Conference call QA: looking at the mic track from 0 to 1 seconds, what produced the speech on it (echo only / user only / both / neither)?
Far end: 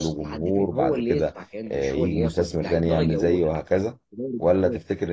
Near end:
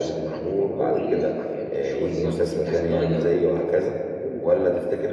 echo only